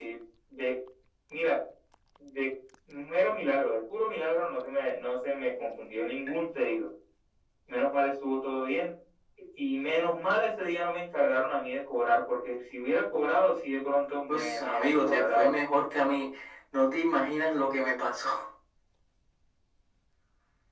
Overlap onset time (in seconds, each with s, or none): 14.3 s